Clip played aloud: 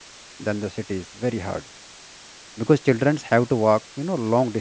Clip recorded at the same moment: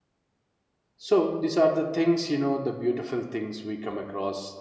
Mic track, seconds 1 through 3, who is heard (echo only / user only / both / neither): user only